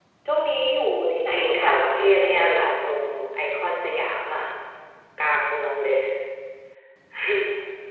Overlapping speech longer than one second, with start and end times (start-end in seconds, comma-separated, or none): 1.3-2.6